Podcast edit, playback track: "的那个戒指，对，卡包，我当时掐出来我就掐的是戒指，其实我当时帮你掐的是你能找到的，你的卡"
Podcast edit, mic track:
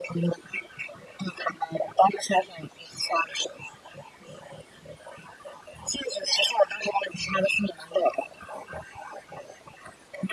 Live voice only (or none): none